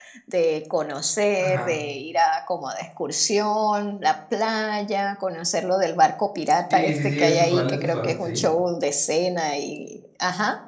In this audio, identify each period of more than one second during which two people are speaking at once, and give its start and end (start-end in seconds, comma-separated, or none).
6.7-8.4